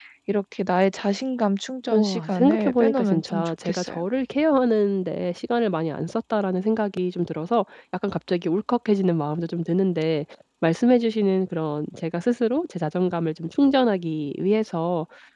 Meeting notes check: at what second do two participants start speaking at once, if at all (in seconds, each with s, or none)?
1.9 s